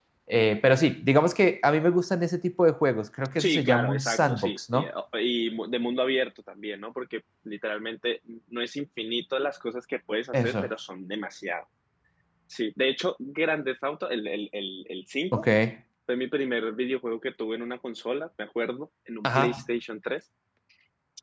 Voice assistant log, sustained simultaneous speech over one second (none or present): present